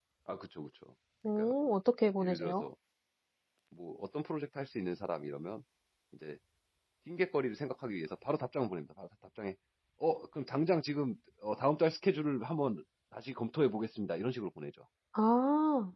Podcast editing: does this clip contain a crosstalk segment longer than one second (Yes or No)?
No